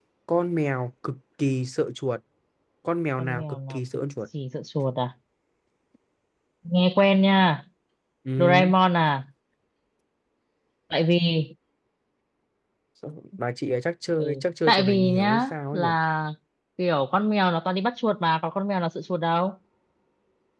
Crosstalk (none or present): present